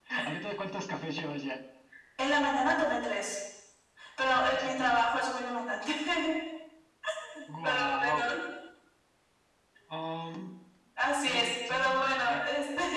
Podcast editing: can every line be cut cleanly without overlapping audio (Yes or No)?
No